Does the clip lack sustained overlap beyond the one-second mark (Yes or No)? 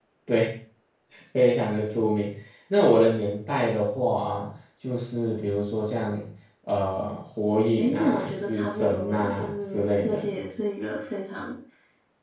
No